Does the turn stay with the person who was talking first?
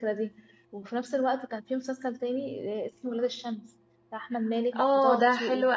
No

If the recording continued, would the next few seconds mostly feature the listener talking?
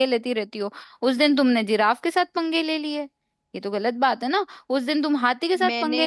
No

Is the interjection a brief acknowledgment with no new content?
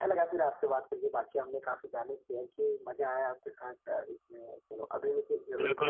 No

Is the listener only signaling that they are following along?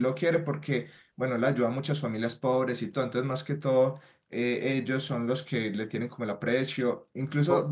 Yes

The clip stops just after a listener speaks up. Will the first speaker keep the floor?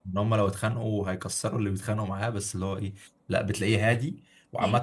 Yes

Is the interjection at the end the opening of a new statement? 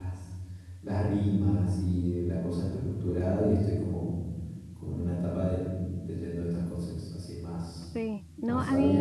Yes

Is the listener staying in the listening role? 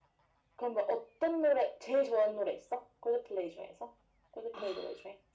No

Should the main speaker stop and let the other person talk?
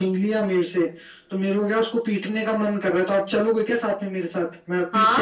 Yes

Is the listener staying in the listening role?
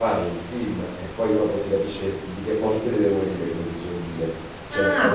No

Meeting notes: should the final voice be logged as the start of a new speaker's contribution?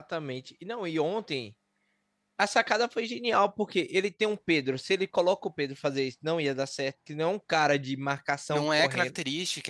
Yes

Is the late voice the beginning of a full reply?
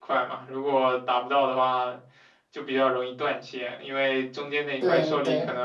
No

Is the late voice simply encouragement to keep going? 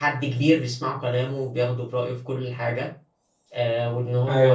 Yes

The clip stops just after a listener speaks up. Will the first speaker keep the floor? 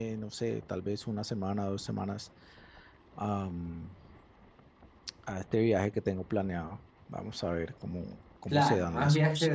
No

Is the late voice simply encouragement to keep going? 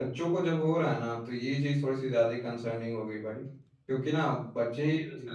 Yes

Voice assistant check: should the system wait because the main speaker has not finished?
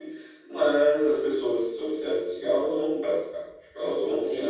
No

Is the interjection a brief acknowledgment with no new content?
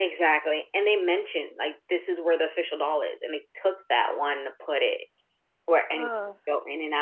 Yes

